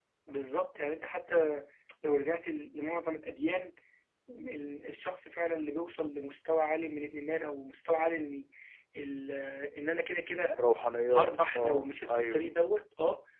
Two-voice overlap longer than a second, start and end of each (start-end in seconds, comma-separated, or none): 11.1-12.5